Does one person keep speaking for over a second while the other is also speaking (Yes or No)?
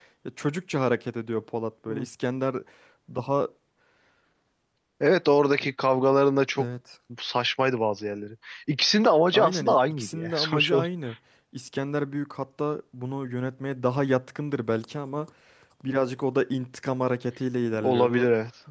Yes